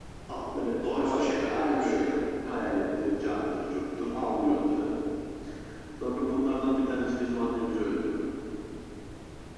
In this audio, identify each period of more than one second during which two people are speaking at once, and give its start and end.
0.5-2.1

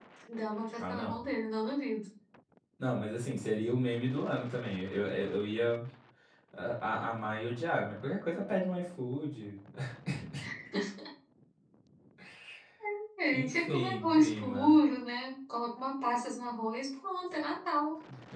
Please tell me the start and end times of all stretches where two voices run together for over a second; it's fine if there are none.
13.3-14.8

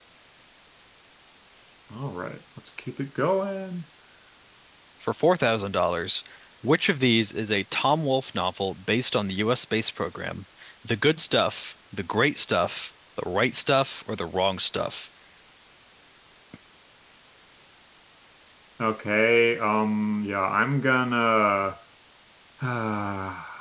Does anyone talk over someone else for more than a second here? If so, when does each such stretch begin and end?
none

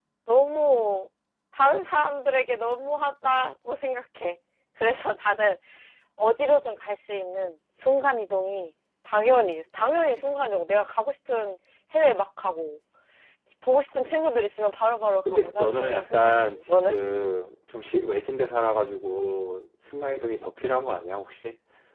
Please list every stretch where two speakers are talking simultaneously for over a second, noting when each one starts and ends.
15.2-17.0

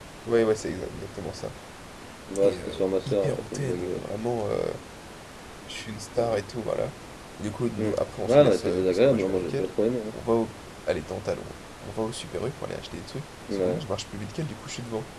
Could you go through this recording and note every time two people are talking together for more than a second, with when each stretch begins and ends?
2.4-4.0, 8.2-9.7

